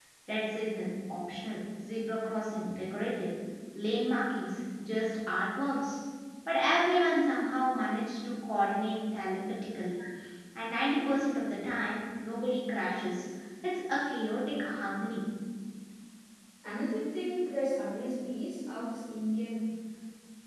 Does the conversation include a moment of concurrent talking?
No

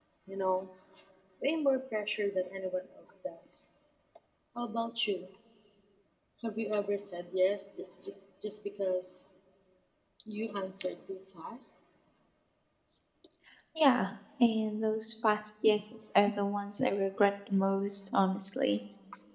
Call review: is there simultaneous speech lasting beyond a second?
No

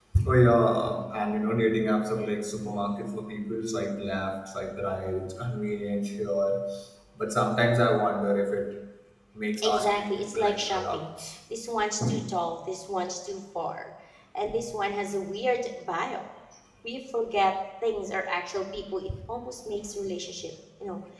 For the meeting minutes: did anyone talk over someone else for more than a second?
Yes, from 9.6 s

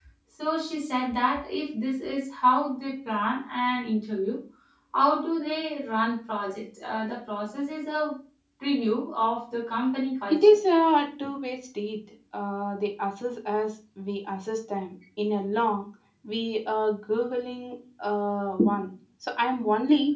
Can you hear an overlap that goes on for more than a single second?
No

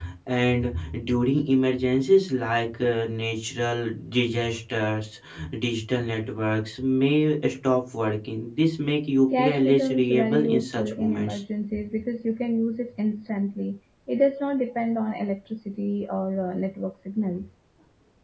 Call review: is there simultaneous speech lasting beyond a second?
Yes, from 9.3 s

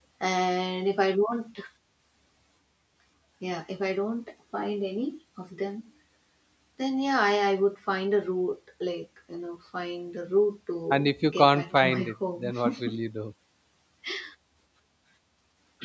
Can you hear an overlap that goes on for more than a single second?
Yes, from 10.9 s

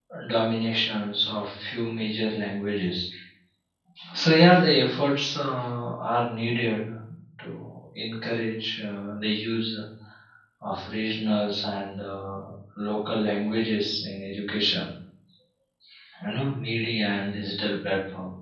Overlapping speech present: No

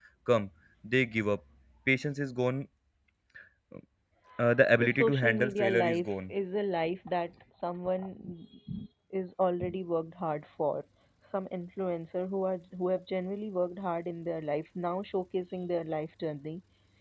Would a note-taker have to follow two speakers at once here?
Yes, from 4.8 s

